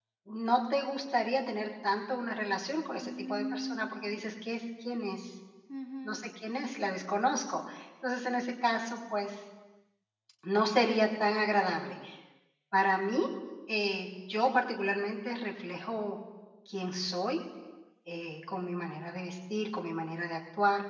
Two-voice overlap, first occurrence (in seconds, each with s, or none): 3.0 s